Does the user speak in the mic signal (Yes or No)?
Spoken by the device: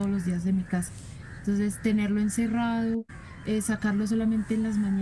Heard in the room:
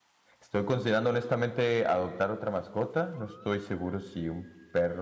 Yes